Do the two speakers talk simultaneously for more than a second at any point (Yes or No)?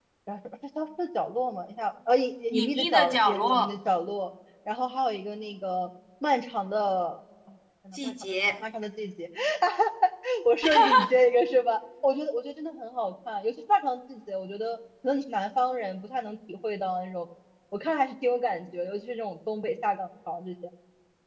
Yes